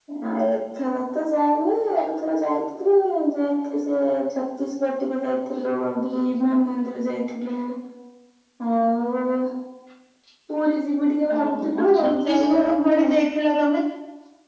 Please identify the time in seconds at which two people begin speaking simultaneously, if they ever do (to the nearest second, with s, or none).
11 s